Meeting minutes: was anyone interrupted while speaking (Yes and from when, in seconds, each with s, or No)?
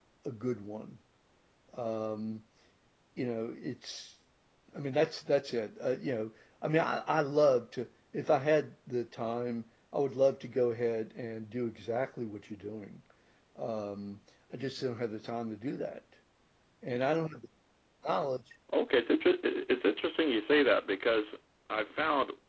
No